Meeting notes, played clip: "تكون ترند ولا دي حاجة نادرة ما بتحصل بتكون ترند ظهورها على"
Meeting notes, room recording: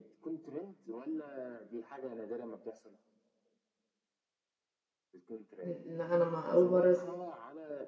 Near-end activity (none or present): present